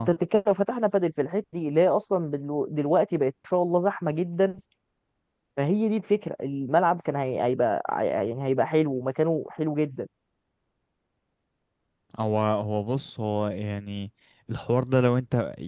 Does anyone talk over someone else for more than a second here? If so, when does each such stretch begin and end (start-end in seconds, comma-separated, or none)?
none